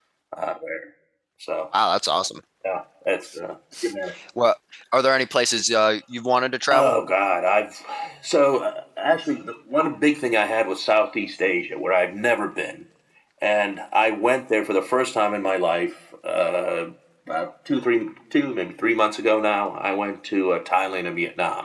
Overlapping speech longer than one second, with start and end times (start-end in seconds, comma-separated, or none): none